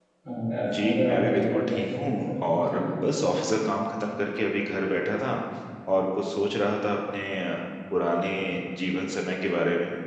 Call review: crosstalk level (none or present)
present